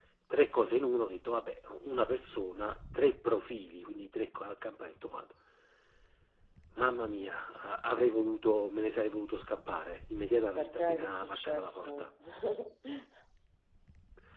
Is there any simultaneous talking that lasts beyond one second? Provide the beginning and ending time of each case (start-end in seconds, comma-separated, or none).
10.6-12.1